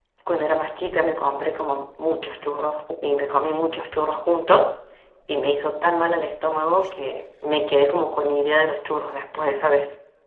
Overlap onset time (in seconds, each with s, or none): none